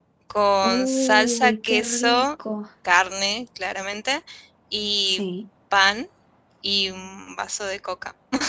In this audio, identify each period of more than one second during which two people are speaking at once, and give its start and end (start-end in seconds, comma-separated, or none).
0.6-2.3